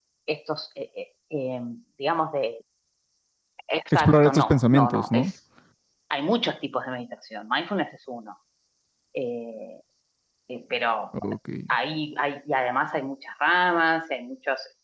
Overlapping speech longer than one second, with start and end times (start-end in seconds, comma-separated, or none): 3.9-5.3